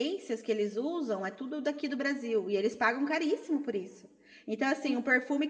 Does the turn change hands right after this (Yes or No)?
No